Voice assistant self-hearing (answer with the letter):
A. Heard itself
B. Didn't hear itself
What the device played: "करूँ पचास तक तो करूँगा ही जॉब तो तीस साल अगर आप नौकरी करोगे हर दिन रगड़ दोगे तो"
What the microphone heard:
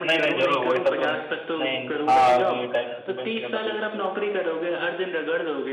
A